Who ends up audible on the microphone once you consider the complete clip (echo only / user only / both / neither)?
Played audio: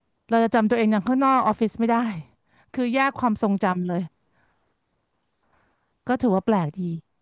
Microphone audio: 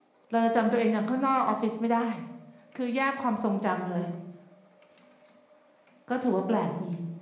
echo only